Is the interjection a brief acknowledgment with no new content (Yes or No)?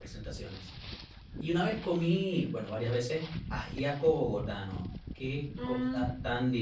Yes